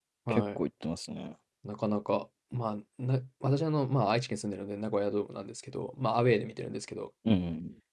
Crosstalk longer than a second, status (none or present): none